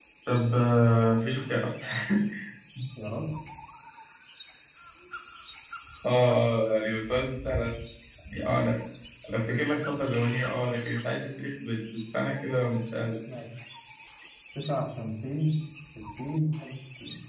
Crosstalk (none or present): none